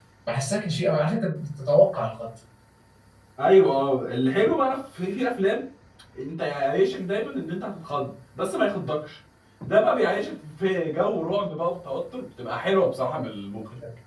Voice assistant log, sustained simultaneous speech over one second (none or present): none